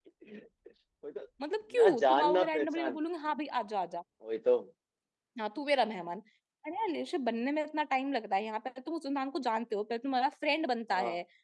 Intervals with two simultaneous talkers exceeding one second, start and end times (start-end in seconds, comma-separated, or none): 1.8-3.0